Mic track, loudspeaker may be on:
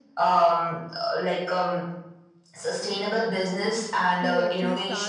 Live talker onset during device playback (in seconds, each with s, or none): 3.8 s